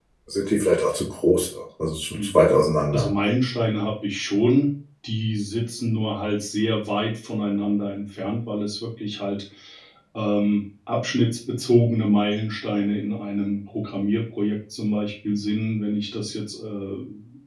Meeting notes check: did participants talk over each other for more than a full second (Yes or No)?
No